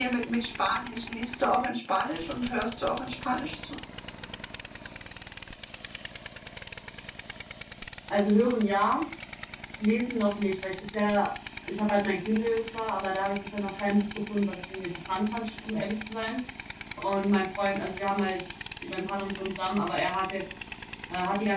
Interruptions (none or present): none